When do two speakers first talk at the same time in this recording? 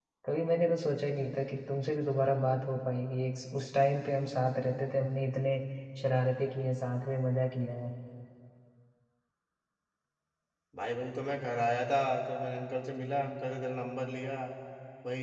none

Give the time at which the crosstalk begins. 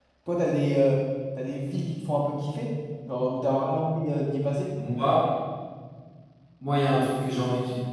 none

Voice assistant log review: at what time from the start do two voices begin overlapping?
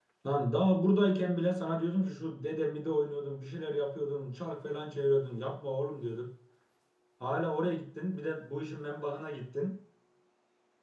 none

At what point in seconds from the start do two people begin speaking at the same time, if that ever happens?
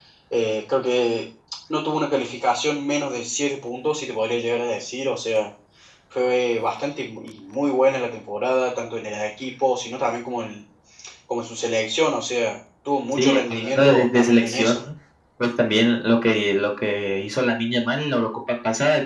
13 s

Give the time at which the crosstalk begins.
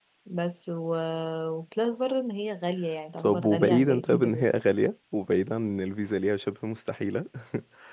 3 s

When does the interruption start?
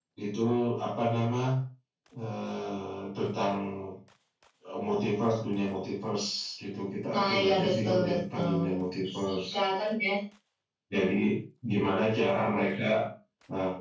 7 s

